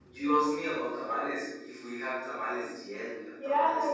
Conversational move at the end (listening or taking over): taking over